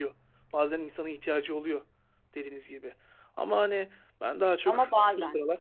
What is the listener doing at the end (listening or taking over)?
listening